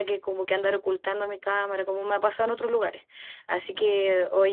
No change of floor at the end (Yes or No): Yes